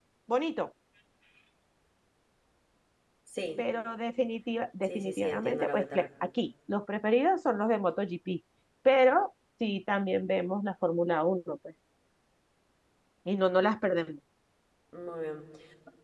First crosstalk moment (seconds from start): 4.8 s

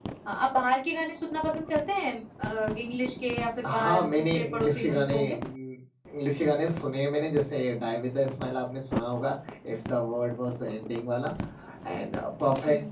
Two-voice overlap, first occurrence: 3.6 s

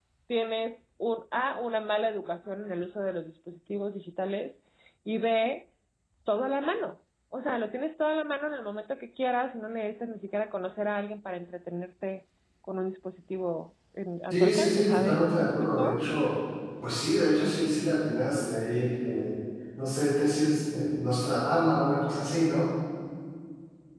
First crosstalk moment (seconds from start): 14.3 s

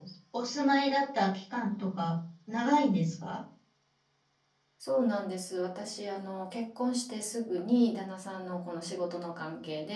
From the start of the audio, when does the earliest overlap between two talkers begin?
none

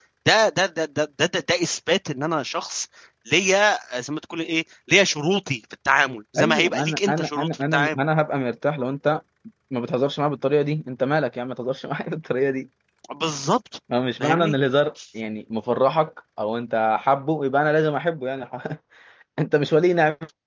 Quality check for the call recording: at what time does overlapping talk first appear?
6.4 s

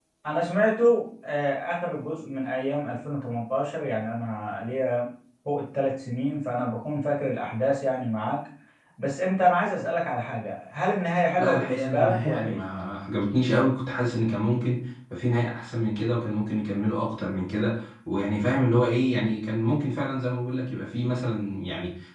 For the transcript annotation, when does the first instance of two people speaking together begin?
11.4 s

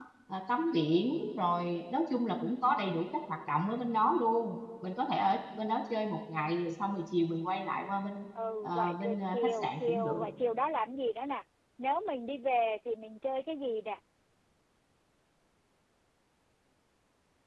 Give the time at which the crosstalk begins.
8.6 s

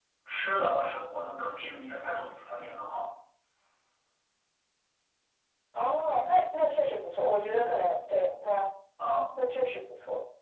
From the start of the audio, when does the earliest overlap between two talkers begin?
none

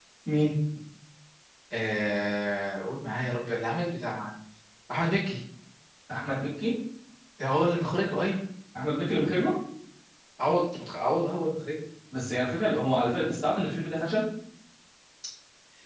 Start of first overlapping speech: none

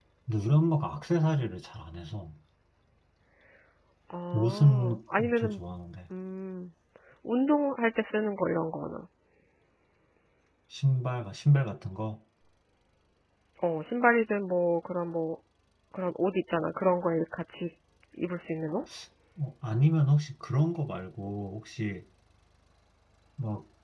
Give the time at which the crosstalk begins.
4.3 s

